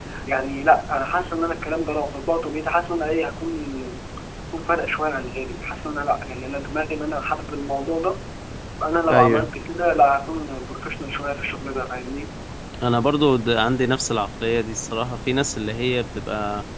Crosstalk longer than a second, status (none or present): none